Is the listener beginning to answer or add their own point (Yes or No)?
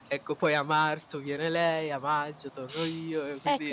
Yes